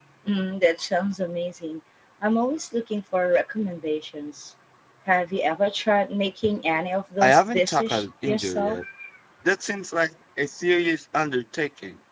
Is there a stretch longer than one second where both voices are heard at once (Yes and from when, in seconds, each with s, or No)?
Yes, from 7.2 s